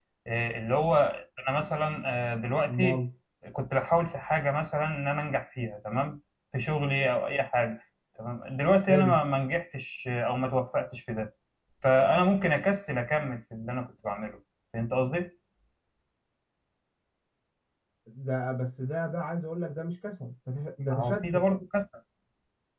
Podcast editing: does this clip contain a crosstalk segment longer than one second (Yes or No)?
No